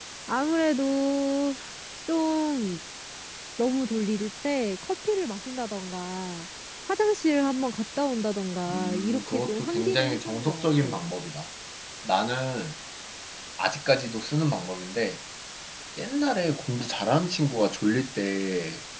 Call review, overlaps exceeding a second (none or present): present